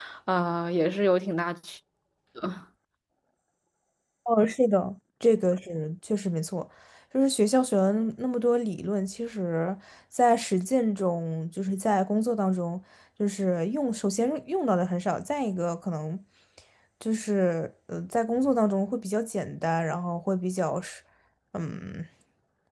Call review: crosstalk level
none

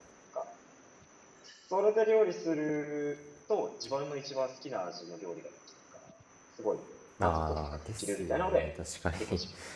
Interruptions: present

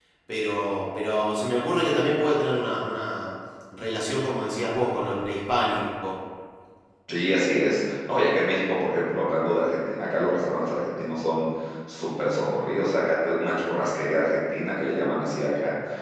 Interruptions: none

